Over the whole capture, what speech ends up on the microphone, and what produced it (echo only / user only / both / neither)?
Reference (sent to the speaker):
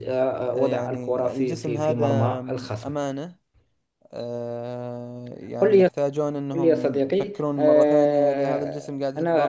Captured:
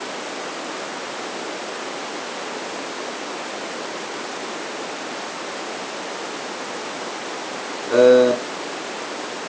user only